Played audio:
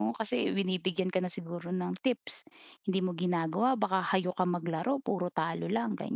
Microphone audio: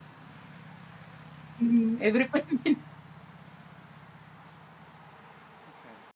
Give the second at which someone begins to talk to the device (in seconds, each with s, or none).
1.6 s